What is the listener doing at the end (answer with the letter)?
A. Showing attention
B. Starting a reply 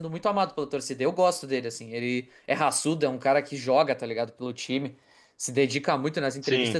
A